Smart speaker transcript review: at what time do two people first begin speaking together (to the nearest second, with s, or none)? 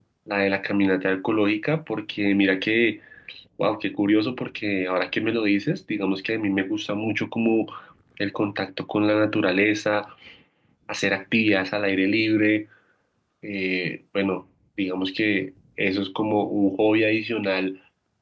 none